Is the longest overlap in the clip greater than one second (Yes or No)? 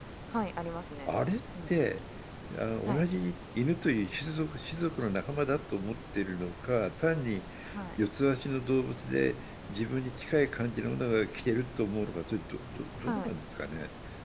No